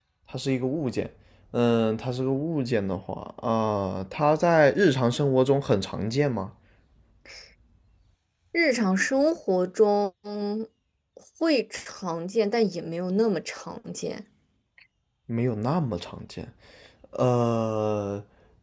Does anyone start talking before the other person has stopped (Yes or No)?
No